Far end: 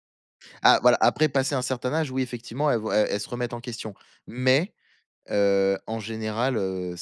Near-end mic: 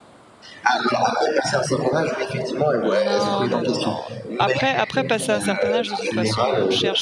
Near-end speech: present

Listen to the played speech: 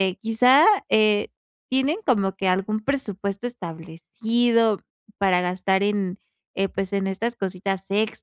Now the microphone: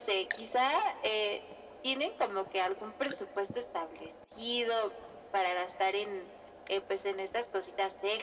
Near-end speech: none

